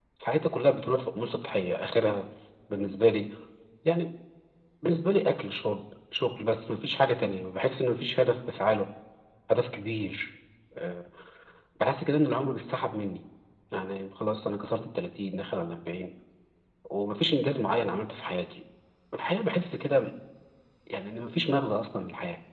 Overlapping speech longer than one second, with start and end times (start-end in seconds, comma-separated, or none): none